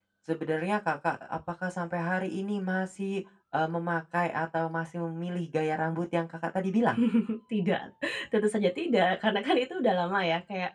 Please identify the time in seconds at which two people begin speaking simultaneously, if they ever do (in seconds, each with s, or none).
none